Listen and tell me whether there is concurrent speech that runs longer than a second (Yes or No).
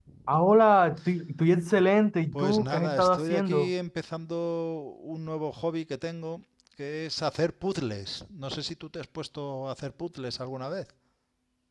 Yes